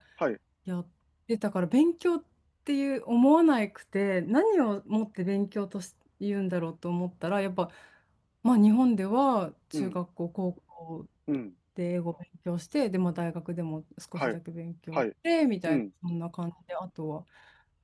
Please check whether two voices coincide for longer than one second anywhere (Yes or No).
No